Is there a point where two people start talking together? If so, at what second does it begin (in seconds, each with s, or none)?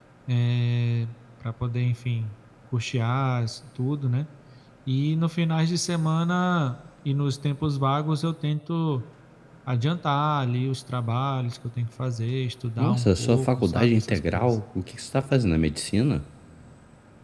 12.8 s